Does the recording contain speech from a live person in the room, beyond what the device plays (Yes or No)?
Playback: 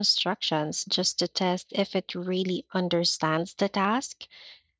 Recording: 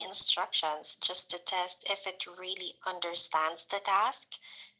No